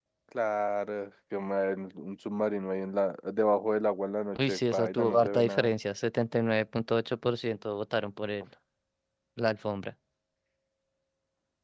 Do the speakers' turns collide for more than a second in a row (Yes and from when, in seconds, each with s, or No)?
Yes, from 4.3 s